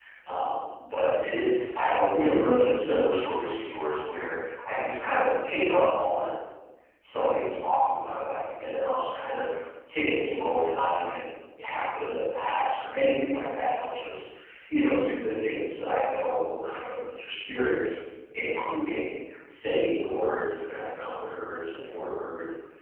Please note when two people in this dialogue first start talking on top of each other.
none

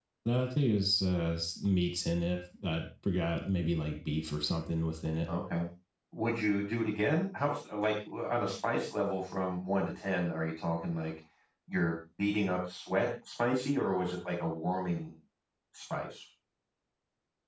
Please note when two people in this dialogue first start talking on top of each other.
none

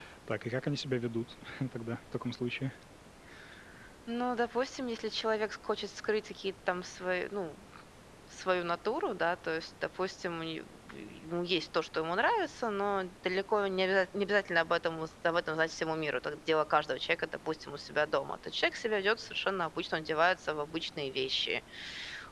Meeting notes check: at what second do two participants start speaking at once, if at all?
none

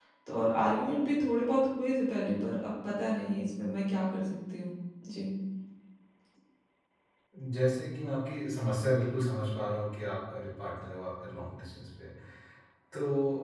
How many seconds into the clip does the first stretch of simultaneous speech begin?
none

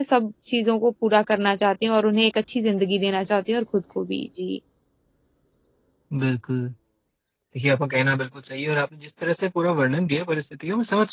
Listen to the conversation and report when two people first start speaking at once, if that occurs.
none

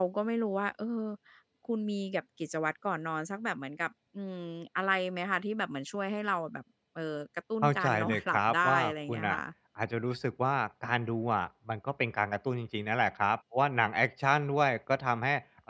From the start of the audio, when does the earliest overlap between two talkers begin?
7.6 s

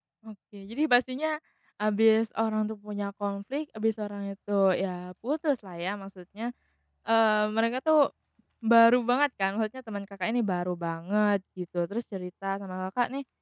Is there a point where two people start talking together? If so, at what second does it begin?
none

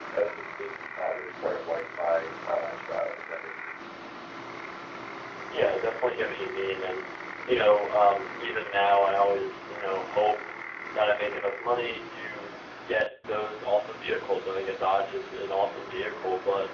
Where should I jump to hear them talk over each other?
none

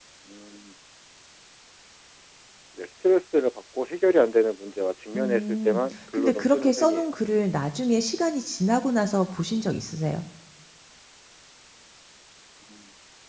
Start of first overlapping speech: 5.1 s

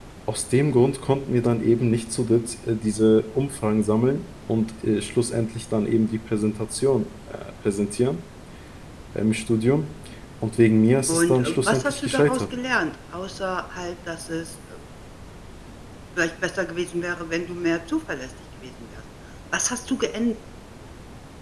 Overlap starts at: 11.1 s

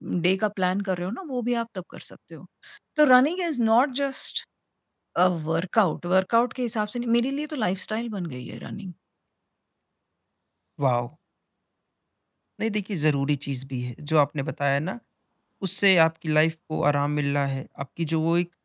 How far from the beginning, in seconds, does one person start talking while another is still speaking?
none

